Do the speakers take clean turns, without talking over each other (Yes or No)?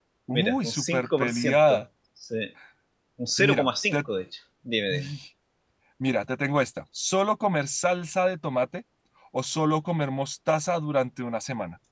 No